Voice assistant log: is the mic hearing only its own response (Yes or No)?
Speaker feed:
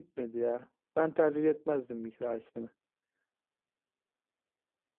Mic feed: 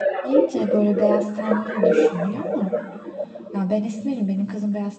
No